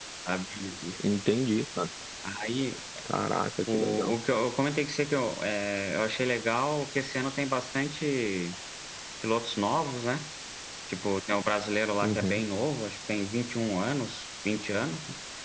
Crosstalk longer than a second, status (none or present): none